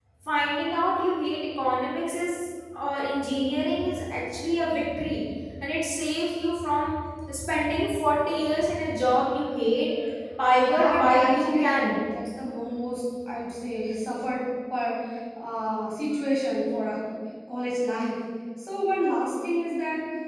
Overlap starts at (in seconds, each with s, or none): 10.6 s